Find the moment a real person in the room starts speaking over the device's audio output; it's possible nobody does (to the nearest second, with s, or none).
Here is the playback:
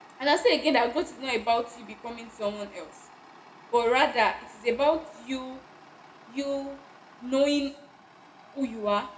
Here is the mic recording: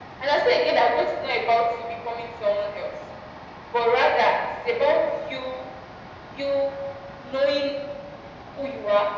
none